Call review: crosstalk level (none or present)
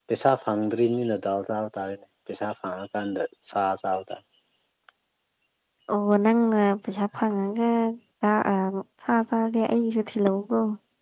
none